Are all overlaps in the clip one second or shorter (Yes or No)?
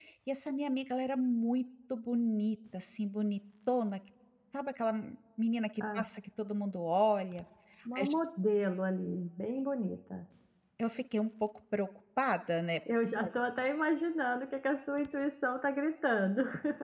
Yes